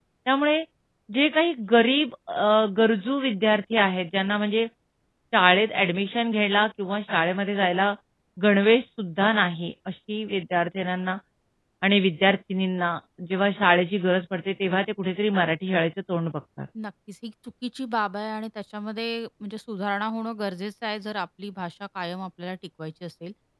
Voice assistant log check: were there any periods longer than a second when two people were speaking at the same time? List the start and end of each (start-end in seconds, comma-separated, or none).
none